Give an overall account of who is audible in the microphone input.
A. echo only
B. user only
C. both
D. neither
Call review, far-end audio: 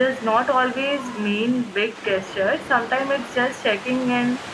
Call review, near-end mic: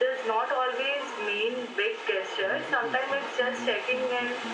C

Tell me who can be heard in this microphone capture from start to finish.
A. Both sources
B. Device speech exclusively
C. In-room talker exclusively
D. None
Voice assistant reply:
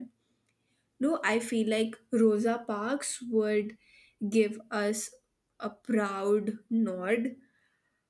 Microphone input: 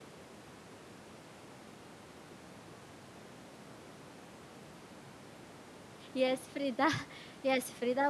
C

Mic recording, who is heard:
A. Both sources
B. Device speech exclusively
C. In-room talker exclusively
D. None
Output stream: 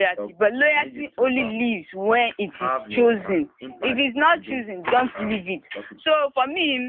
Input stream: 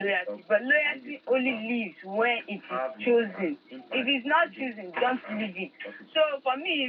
B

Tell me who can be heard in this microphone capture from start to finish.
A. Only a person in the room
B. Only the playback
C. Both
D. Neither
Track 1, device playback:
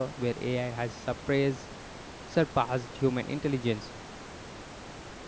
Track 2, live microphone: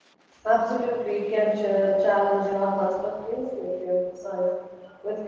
A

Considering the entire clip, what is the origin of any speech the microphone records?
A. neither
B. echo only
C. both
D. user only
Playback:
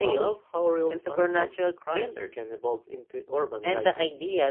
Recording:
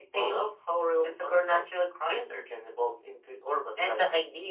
B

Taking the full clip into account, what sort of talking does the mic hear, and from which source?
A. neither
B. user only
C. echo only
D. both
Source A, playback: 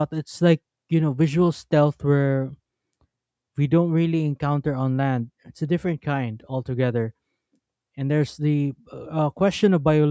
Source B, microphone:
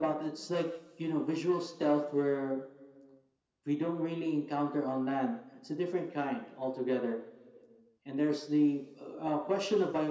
C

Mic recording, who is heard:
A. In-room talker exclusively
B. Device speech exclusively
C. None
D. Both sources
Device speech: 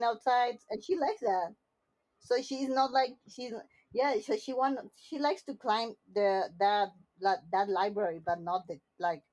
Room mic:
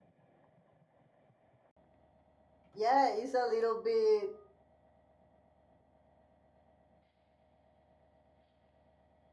A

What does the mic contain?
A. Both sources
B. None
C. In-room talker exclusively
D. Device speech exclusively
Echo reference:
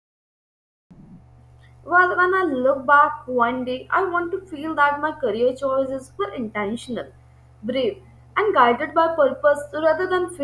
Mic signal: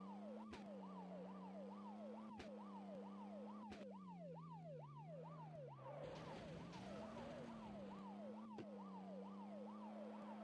B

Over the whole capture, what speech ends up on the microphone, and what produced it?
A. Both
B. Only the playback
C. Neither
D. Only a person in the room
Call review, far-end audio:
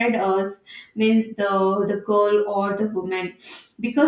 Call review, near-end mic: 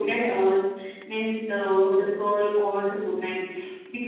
B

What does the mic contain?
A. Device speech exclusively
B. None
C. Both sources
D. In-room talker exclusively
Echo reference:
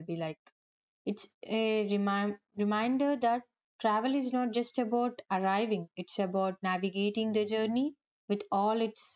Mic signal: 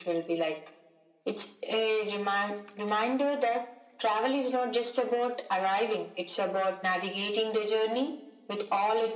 A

